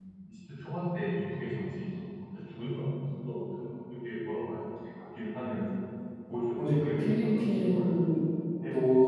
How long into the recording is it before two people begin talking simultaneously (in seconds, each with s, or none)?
6.6 s